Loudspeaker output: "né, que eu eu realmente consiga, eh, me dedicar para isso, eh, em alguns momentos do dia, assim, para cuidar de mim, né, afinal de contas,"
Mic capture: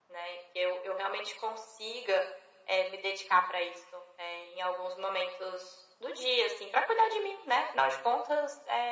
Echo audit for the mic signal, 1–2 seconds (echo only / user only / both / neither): echo only